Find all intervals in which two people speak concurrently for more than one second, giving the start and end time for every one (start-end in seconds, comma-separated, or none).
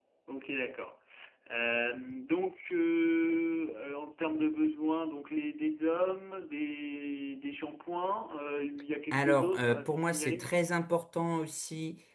9.1-10.5